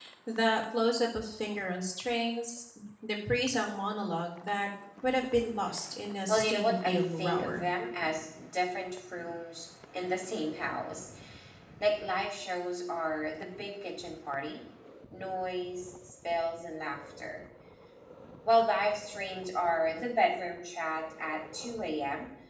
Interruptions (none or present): present